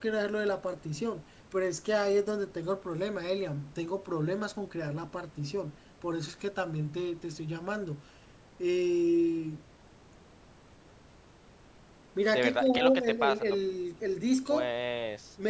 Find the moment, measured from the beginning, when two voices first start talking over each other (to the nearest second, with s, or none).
12 s